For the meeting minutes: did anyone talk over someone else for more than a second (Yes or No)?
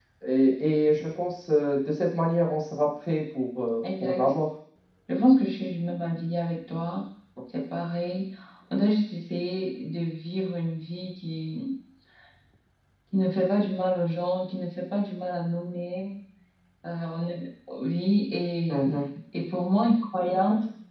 No